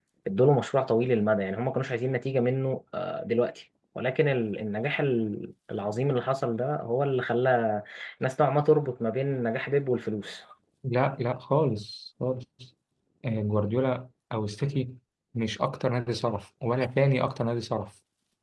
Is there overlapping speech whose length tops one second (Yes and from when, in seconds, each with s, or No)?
No